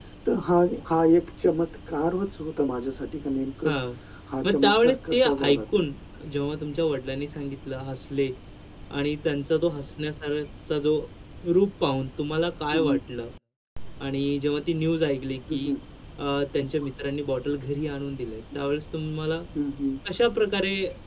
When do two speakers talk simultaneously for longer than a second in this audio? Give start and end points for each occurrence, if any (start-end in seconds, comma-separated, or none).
4.4-5.8